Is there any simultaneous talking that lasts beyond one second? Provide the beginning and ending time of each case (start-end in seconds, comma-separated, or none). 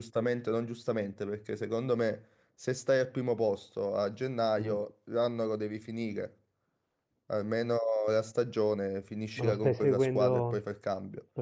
9.4-10.6